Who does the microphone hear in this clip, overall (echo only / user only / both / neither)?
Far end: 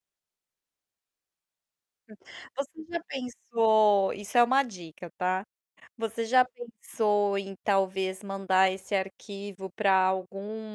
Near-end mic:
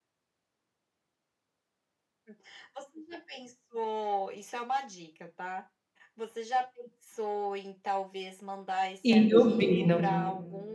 both